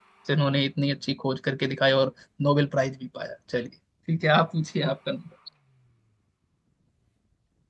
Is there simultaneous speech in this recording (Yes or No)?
No